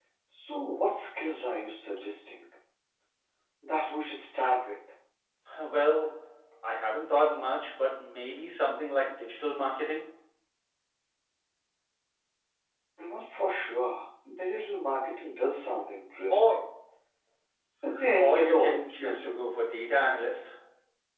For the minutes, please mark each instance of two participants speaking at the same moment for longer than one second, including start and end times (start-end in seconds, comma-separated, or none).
18.2-19.4